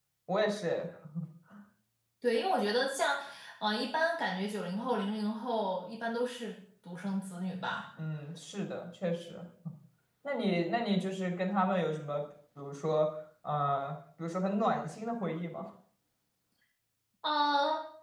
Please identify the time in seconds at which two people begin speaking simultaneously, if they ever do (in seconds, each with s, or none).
none